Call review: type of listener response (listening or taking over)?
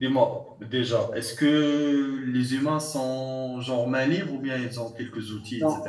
taking over